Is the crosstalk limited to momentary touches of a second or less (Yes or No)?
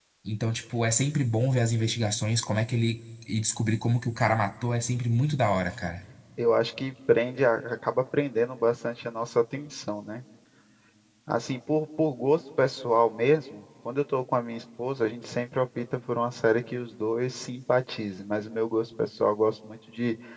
Yes